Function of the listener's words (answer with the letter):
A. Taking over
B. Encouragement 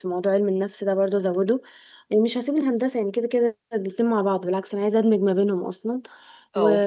B